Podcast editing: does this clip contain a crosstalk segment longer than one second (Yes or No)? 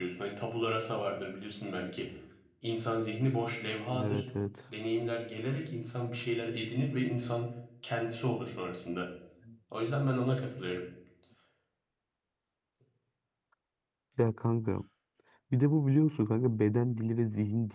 No